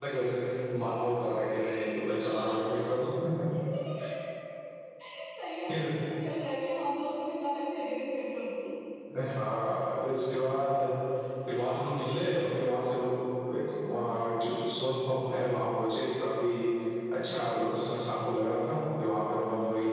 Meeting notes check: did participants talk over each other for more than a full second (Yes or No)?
No